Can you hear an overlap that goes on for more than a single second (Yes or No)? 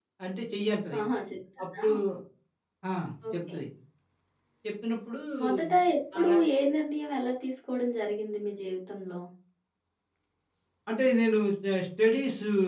No